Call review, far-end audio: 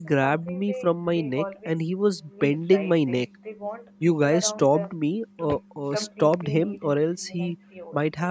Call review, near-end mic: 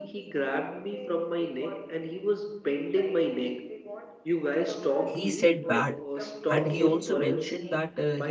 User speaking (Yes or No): Yes